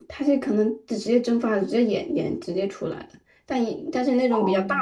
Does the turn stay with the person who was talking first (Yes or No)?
Yes